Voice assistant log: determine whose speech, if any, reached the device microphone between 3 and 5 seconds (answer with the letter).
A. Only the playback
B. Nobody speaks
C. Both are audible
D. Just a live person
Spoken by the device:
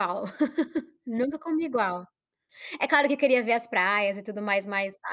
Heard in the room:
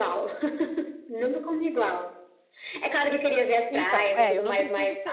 C